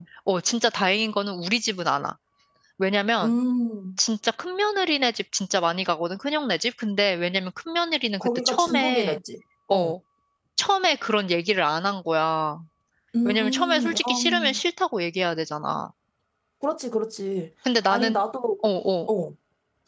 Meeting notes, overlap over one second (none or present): present